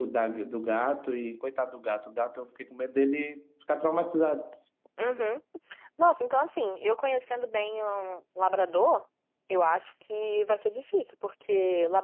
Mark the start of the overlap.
none

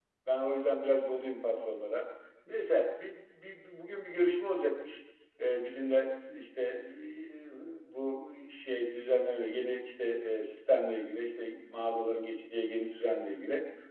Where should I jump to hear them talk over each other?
none

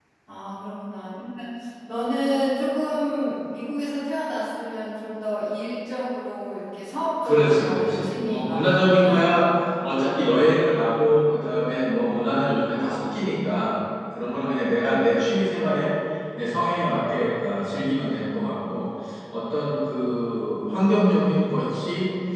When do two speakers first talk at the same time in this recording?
7.2 s

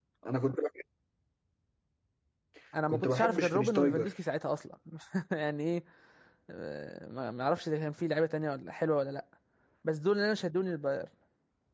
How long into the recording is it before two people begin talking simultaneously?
2.9 s

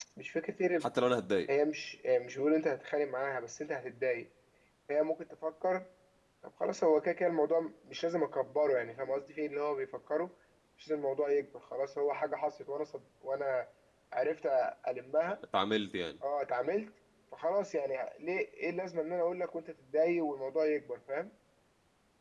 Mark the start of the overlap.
none

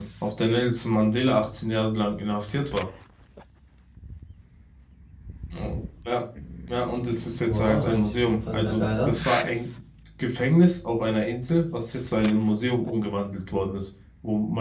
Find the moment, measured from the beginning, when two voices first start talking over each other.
7.4 s

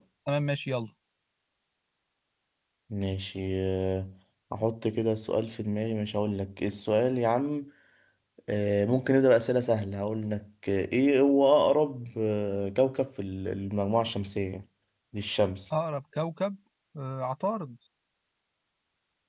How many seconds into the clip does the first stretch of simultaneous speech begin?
none

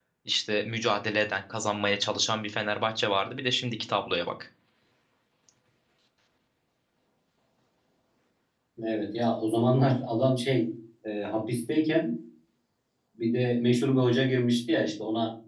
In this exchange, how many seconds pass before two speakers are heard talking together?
none

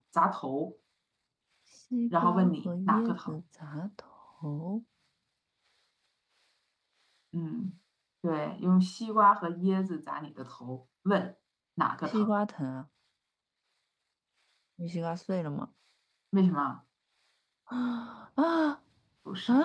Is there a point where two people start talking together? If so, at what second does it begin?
2.1 s

